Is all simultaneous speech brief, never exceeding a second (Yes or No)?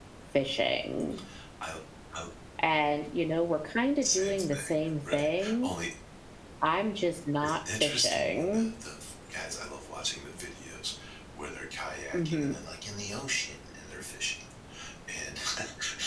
No